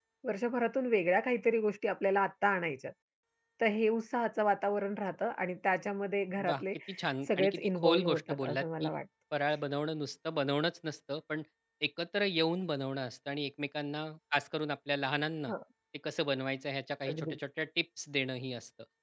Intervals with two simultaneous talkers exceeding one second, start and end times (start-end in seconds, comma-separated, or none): 7.4-8.9